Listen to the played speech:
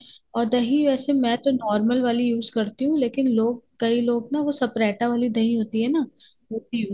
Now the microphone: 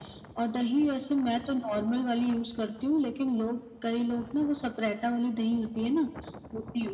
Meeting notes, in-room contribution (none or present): none